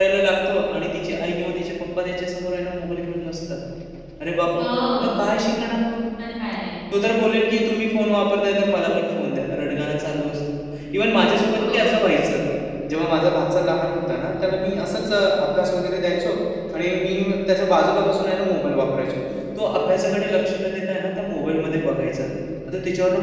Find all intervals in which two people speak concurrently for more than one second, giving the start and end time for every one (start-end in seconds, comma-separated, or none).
none